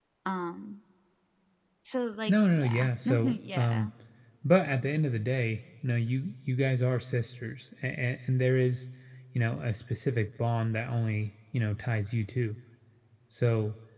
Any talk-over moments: Yes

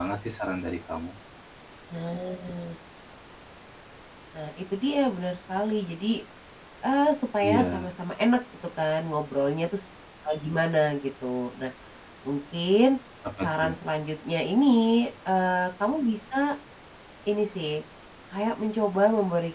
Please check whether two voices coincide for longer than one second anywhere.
No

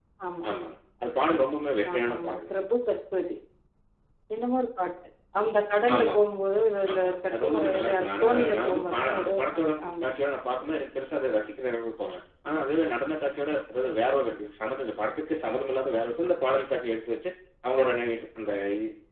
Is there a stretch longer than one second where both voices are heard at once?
Yes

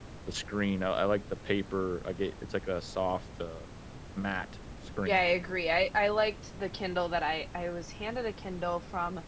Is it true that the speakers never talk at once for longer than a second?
Yes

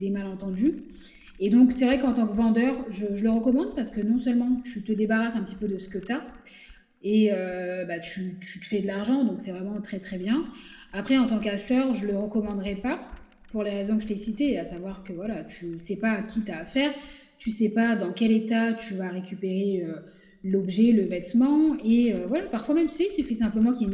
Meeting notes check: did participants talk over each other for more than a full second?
No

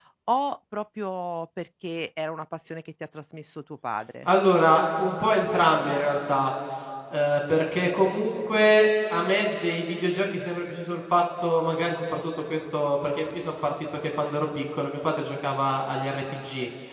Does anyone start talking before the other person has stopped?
No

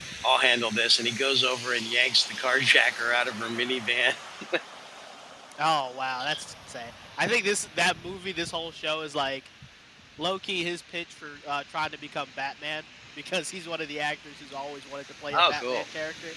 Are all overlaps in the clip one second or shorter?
Yes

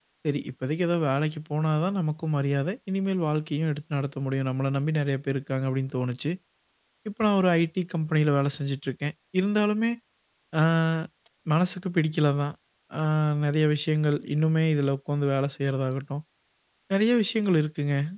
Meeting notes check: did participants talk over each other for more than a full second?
No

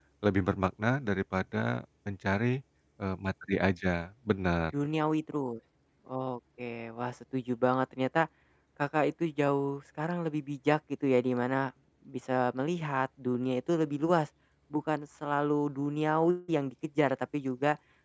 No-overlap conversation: Yes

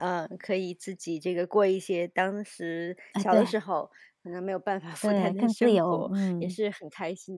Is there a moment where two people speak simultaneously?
Yes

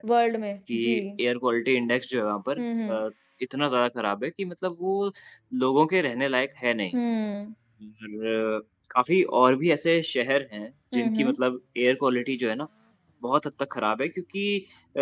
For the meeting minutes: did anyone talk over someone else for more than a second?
No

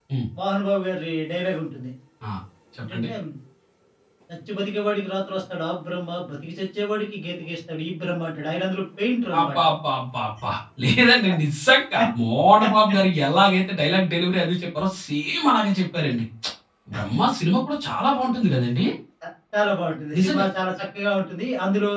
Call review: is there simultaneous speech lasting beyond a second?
No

